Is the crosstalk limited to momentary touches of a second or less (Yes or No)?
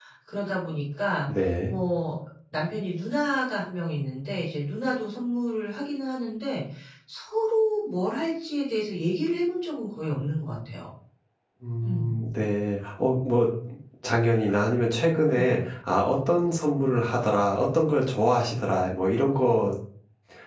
Yes